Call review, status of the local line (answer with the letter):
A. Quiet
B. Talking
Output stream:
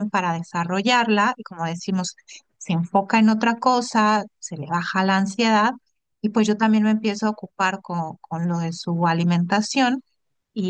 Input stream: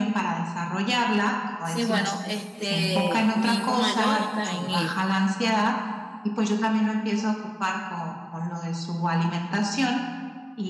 B